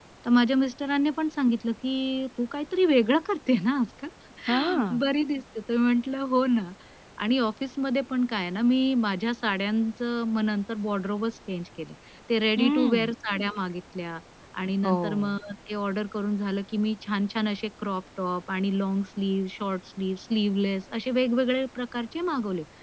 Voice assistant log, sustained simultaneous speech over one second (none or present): none